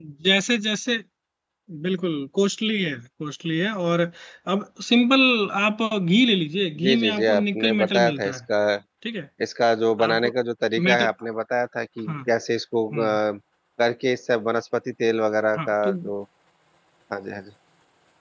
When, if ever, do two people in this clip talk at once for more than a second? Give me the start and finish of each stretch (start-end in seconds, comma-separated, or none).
6.8-8.4